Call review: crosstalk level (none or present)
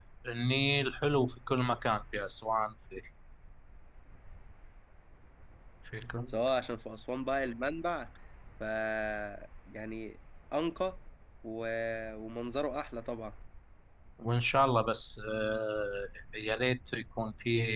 none